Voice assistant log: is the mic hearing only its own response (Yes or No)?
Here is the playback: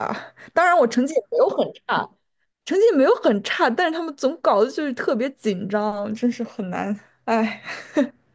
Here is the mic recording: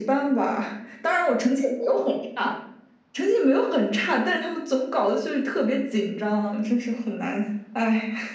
Yes